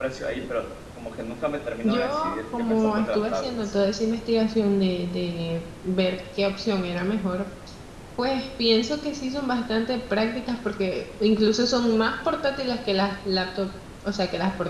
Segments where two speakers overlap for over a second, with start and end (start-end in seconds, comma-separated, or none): 1.8-3.7